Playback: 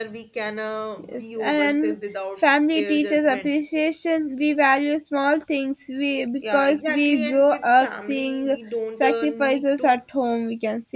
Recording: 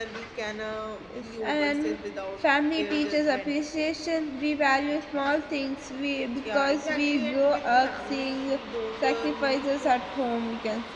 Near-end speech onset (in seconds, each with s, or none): none